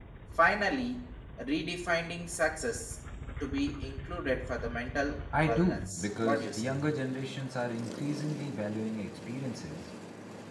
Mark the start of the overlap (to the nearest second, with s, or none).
5 s